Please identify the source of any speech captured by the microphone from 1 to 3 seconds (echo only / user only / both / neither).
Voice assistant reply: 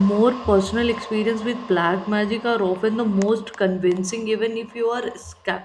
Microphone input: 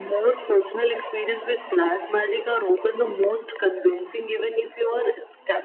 echo only